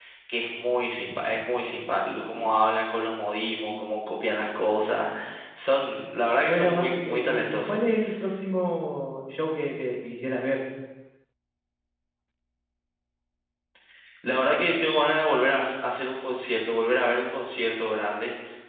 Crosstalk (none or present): present